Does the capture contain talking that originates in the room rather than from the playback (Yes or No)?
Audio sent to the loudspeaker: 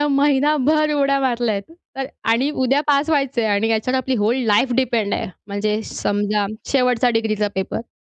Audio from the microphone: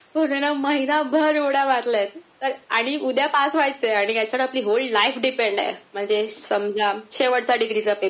No